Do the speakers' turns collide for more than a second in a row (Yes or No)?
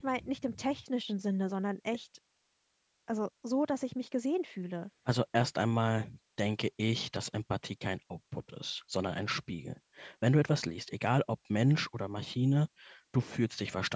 No